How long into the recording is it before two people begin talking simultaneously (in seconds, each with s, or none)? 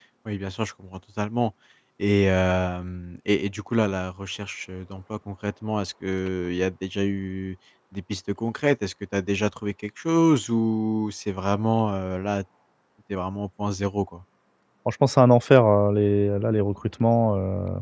none